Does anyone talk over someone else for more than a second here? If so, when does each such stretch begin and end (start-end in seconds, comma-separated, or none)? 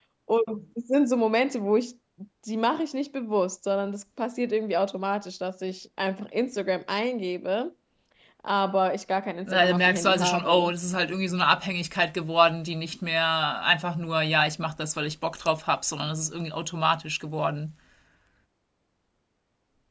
9.5-10.7